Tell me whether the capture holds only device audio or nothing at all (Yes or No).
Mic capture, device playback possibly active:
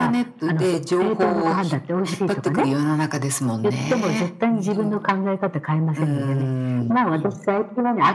No